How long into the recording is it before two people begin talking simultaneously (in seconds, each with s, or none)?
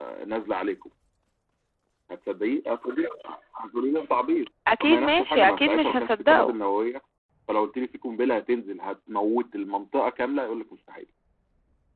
4.7 s